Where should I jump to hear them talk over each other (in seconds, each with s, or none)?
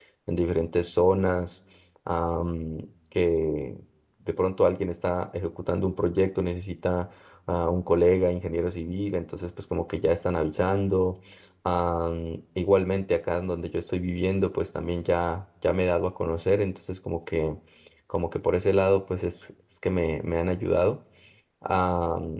none